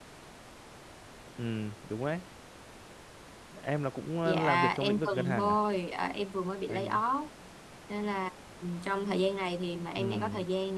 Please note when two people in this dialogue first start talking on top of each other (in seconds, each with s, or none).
4.2 s